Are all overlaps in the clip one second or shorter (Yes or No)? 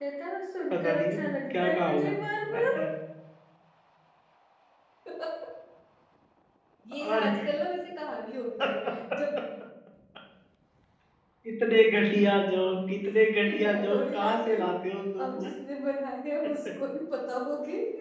No